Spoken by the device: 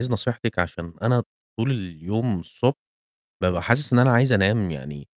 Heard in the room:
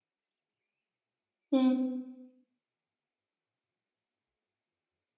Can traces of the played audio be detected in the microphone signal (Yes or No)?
No